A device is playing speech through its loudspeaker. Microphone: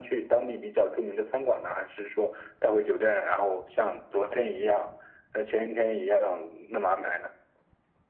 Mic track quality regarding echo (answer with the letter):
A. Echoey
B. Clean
A